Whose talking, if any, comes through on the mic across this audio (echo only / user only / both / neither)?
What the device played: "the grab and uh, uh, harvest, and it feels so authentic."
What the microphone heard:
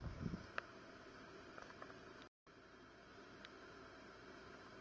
neither